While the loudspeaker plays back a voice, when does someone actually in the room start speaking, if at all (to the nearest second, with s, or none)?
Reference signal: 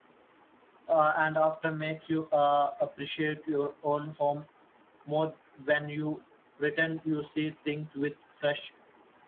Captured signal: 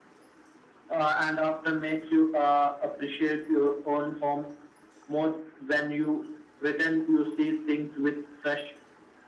none